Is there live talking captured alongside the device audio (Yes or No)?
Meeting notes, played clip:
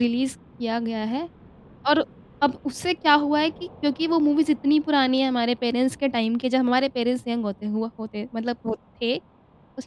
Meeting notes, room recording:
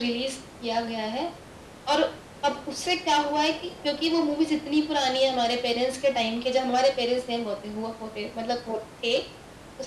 No